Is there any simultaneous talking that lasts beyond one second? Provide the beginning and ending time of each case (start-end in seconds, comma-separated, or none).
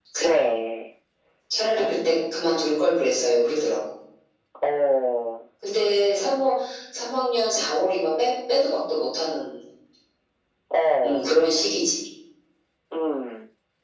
none